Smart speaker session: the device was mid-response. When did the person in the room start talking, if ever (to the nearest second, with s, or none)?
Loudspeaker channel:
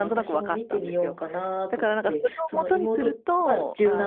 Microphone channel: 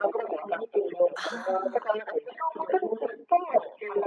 1 s